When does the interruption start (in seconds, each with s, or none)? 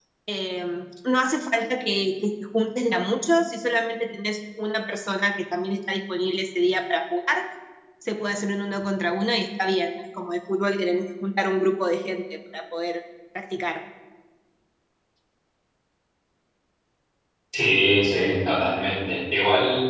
none